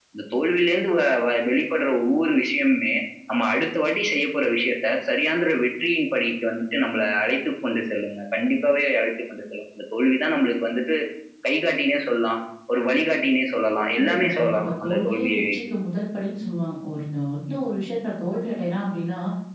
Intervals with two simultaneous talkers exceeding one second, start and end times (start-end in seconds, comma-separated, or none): 14.0-15.6